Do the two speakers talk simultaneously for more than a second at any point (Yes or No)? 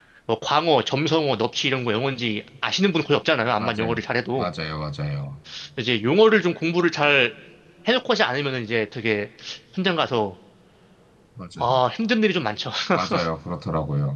No